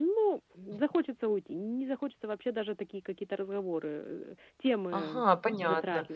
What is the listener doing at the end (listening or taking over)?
taking over